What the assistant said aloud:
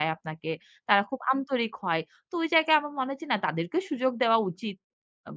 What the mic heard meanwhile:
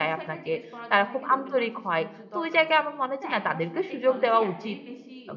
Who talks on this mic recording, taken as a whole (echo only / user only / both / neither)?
both